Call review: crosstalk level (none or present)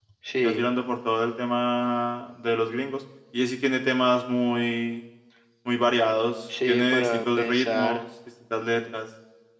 present